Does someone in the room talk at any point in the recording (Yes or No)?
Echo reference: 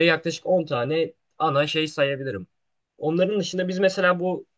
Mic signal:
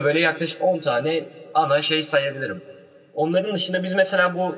No